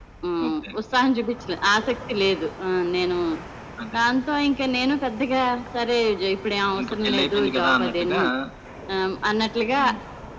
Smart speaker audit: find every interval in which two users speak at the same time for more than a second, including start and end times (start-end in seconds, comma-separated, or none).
6.8-8.2